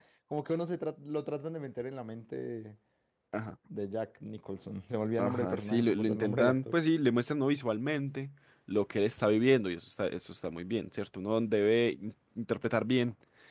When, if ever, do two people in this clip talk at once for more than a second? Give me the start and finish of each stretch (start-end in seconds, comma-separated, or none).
5.2-6.7